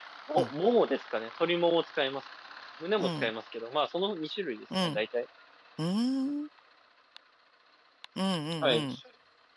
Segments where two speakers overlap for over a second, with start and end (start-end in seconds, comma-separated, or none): none